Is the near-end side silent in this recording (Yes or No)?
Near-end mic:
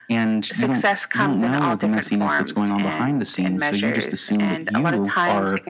Yes